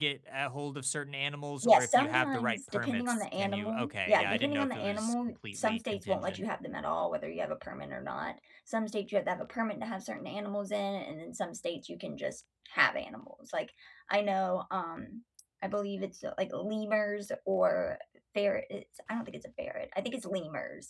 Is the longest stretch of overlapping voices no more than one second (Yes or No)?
No